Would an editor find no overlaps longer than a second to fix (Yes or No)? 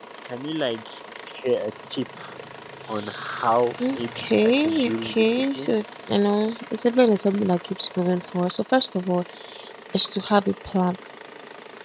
No